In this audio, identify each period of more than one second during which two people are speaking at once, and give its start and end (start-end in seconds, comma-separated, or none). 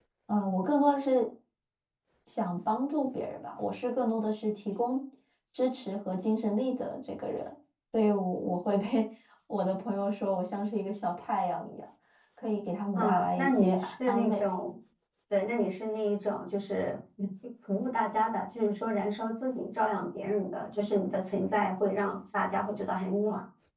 12.9-14.4